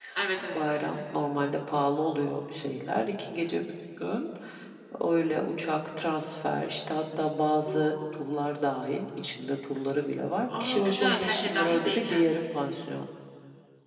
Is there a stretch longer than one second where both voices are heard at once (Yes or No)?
Yes